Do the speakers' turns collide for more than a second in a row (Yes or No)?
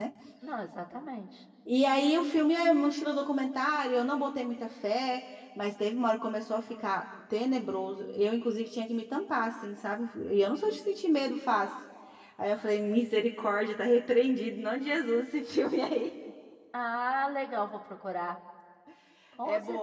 No